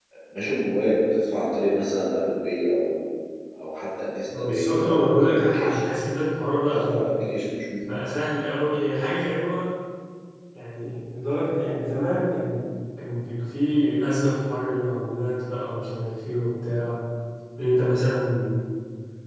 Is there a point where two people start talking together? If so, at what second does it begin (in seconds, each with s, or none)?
4.4 s